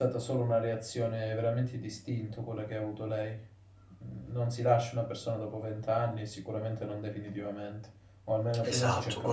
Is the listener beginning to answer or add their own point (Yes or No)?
Yes